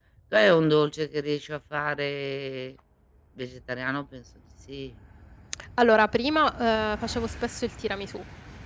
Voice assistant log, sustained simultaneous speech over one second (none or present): none